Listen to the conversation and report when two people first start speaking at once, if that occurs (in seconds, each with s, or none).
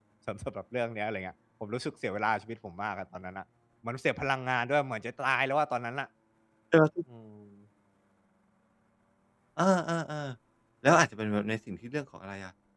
none